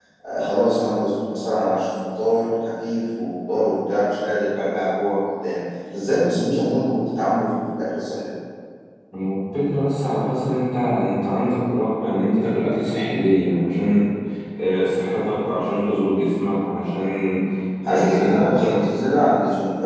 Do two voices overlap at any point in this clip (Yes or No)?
Yes